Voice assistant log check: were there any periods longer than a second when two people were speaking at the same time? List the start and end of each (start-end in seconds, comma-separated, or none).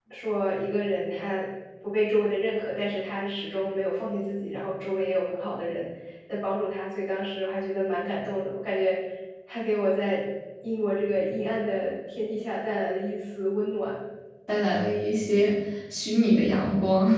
none